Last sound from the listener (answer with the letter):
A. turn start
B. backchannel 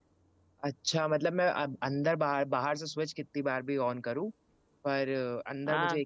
B